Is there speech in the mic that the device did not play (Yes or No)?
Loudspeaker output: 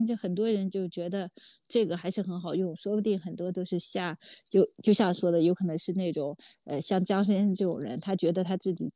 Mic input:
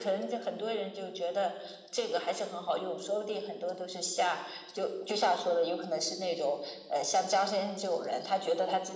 No